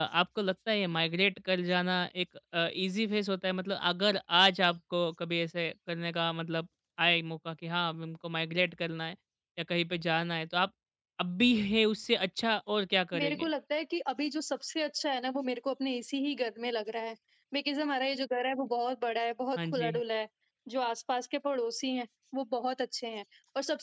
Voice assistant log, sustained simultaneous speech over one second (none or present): none